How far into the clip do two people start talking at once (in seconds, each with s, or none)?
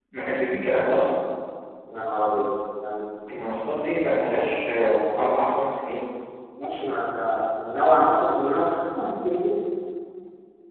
none